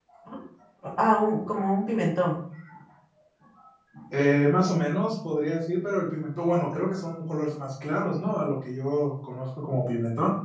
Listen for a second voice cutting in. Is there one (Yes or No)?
No